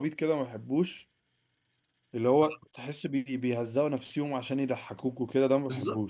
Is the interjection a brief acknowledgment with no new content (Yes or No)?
No